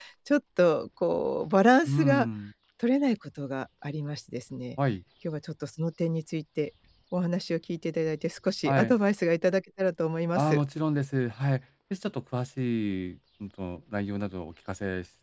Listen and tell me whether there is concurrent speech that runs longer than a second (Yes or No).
No